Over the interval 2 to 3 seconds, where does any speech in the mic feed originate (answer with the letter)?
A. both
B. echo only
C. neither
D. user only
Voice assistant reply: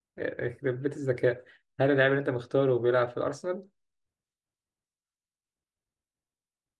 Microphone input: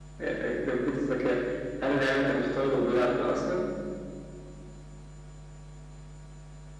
B